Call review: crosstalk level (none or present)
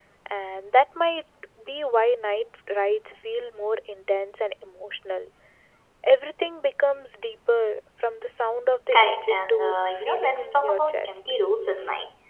present